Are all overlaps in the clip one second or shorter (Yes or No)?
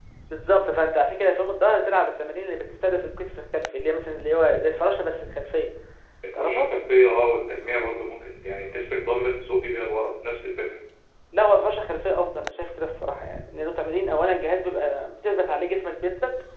Yes